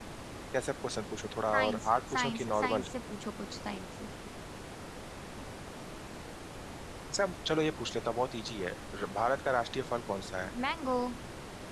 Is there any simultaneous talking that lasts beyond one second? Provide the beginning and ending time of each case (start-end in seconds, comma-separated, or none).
1.5-2.8